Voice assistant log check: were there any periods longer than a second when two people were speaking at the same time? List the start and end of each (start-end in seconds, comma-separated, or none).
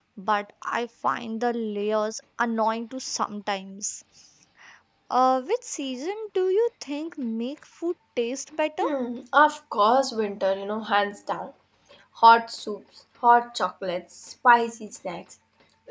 none